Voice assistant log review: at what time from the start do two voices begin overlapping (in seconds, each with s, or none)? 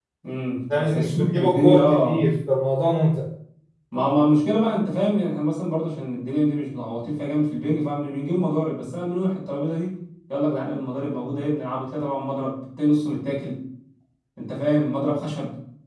0.7 s